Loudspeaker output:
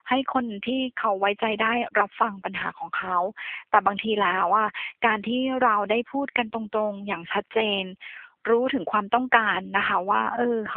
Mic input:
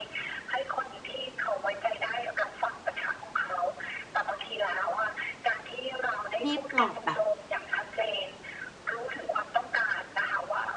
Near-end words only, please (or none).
รีบปลอบแบบ